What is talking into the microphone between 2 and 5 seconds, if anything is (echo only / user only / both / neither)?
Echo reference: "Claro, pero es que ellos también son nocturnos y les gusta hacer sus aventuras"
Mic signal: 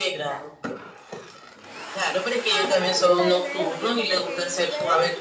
both